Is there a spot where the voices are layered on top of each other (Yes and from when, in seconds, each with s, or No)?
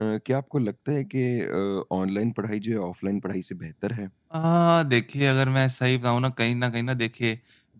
No